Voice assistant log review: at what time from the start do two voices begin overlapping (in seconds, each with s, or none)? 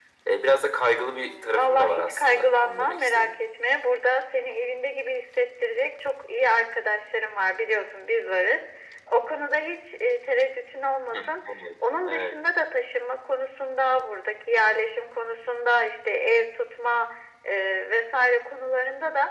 0.9 s